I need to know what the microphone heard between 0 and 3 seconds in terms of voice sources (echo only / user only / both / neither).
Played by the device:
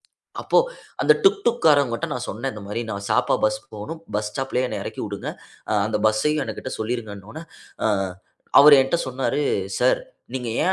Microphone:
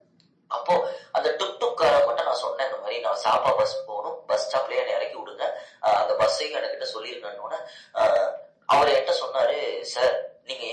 echo only